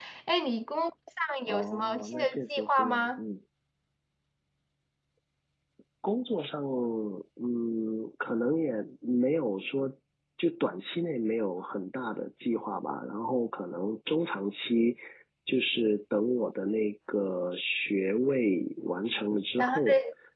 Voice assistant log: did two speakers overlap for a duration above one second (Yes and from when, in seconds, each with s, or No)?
Yes, from 1.5 s